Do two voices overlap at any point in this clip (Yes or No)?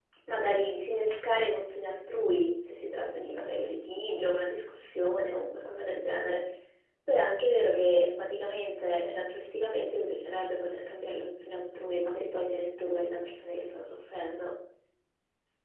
No